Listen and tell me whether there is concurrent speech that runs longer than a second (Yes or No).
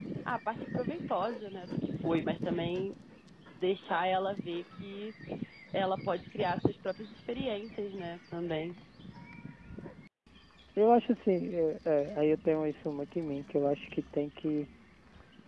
No